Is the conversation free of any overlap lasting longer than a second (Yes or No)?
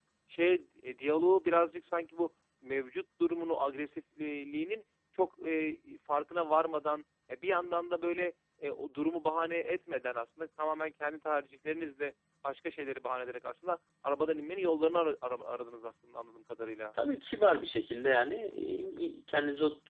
Yes